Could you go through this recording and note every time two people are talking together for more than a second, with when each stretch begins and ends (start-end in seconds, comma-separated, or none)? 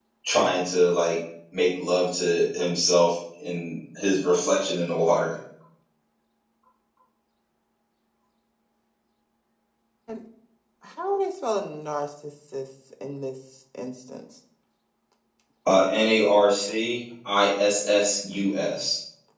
none